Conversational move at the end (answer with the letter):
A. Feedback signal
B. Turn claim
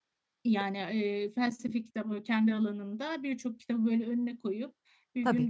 A